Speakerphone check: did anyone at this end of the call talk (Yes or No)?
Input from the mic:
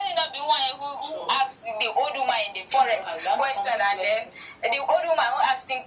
No